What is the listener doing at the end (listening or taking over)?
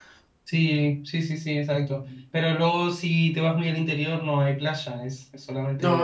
taking over